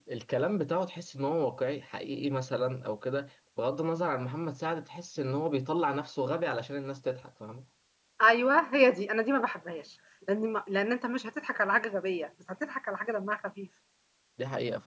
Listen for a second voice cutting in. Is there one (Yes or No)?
No